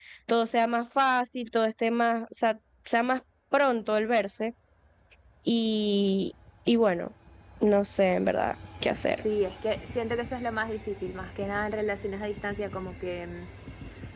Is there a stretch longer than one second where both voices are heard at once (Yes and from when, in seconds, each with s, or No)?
No